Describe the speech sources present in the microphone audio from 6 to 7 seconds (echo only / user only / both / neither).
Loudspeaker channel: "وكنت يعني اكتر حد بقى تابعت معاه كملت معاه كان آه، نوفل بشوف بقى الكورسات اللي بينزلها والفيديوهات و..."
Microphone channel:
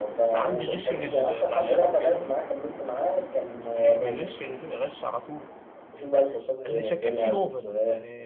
both